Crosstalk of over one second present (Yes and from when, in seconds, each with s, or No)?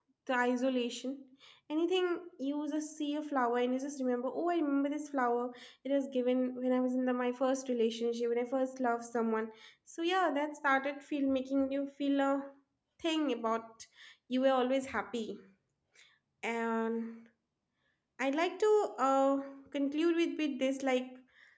No